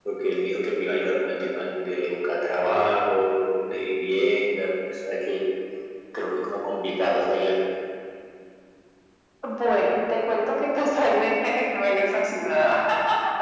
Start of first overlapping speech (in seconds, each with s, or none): none